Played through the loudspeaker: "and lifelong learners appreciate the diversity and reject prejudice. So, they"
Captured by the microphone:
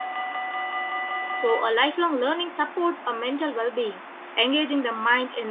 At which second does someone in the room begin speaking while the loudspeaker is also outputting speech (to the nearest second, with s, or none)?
1 s